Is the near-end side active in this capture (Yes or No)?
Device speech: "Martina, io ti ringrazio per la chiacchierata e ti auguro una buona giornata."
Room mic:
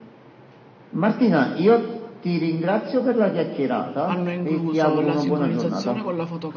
Yes